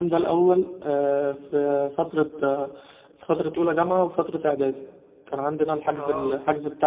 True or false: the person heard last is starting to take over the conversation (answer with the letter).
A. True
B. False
B